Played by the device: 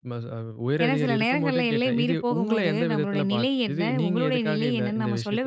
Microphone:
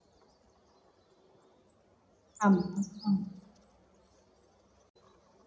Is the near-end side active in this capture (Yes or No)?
Yes